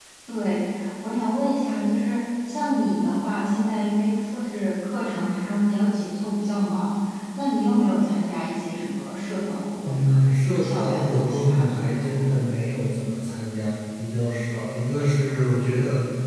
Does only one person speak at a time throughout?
No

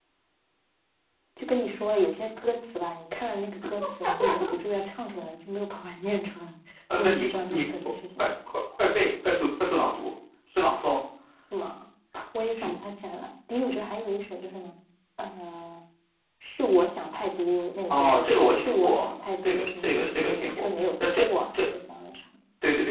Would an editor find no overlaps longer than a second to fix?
No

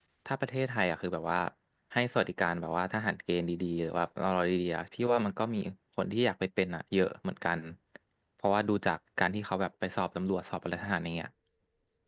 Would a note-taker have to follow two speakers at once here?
No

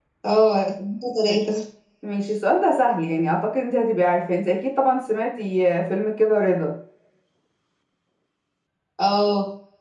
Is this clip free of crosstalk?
Yes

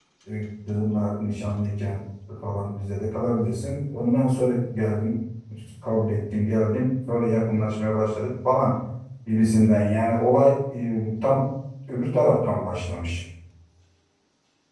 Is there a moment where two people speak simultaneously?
No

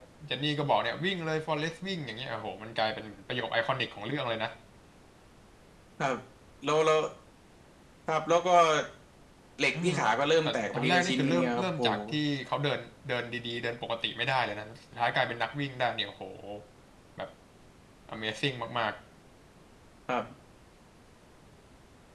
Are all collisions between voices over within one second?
No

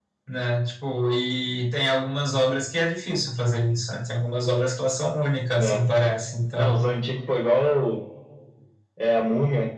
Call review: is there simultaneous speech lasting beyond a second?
No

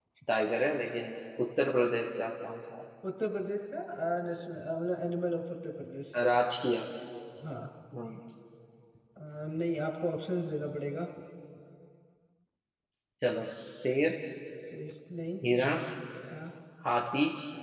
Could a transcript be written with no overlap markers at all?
Yes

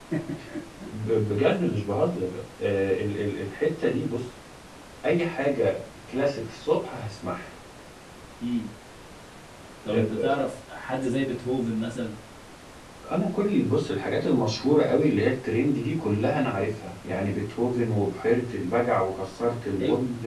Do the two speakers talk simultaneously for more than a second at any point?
No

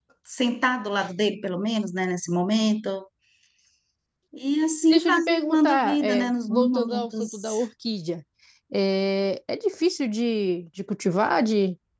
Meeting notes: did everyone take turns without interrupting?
No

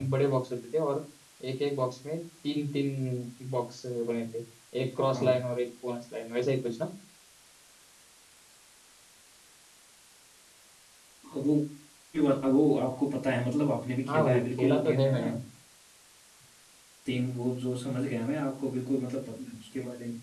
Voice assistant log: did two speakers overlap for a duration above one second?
Yes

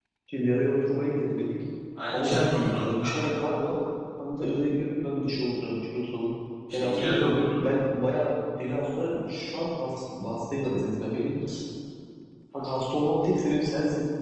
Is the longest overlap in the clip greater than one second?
Yes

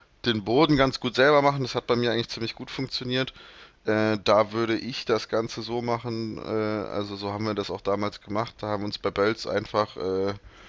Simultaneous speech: No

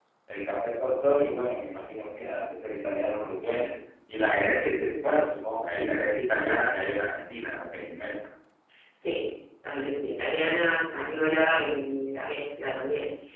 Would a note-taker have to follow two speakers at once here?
No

